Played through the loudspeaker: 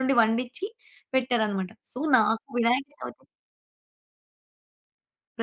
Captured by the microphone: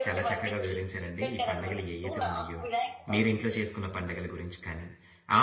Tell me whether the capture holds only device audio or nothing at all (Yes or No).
No